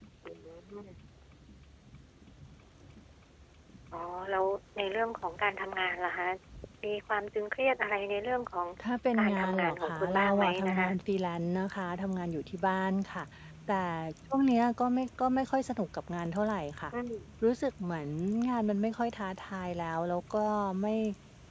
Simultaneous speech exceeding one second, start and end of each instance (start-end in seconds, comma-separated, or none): 9.2-10.9